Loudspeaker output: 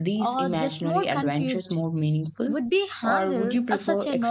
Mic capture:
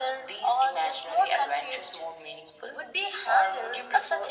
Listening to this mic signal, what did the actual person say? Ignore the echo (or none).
none